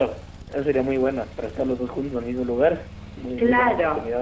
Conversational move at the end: taking over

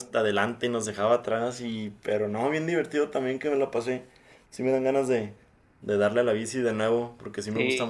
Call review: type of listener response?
taking over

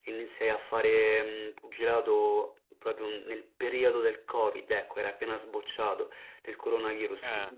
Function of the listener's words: listening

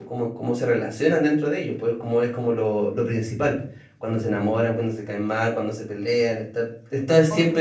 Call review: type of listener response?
listening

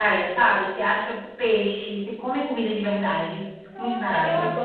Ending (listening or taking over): taking over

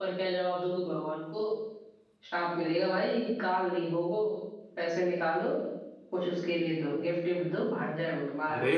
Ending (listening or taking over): taking over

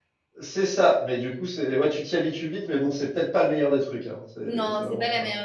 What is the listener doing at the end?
taking over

